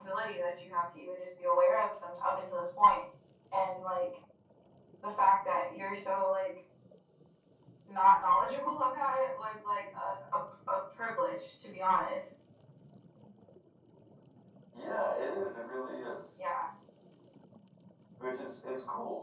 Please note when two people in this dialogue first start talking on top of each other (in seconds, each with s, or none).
none